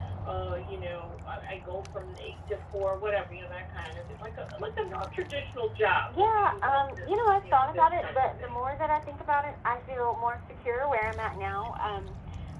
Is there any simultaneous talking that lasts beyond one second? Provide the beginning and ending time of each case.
6.1-8.5

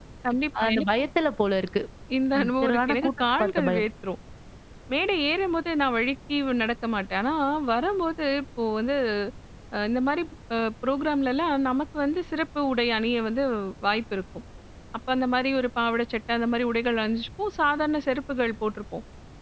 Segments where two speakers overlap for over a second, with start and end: 2.4-3.9

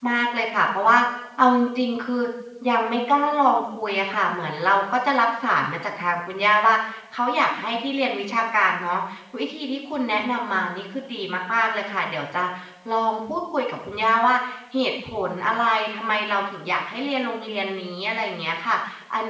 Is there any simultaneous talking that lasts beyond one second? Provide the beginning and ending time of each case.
none

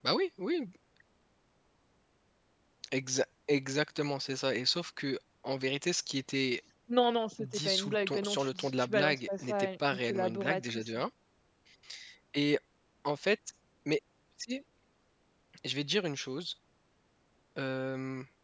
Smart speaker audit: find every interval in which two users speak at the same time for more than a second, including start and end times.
7.4-10.9

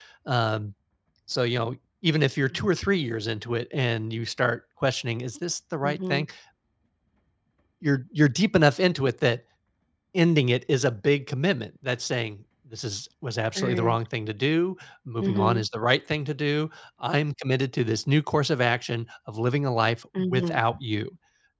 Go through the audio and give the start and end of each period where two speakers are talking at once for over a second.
none

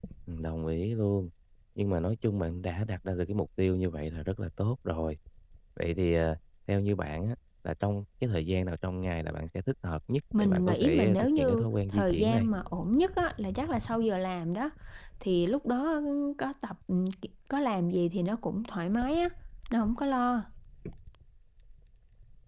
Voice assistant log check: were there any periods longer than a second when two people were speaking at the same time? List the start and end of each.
10.4-12.5

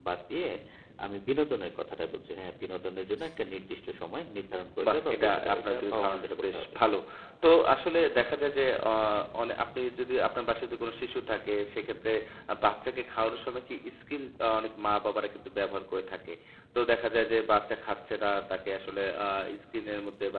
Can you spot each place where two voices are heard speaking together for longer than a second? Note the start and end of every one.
4.9-6.7

